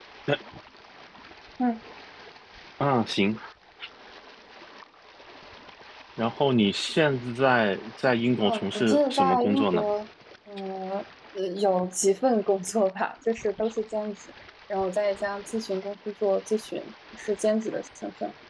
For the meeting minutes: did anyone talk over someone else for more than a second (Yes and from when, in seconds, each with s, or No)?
Yes, from 8.4 s